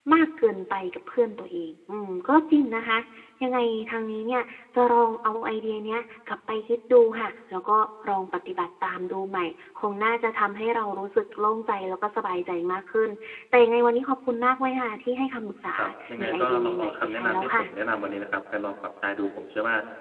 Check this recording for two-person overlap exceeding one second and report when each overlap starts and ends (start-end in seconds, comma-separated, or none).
16.2-17.6